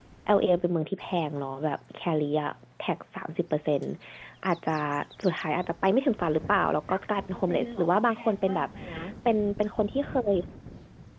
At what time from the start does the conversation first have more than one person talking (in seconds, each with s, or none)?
6.9 s